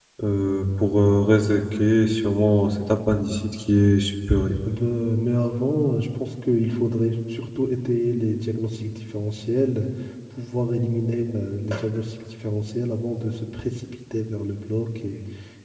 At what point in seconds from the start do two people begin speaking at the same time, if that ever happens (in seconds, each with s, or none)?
none